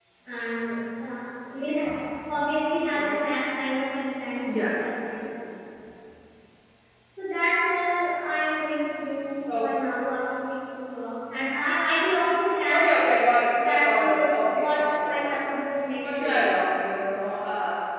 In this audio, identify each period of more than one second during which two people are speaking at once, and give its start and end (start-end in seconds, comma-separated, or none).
13.7-15.4